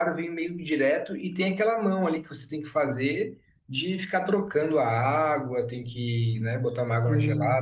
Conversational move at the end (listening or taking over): taking over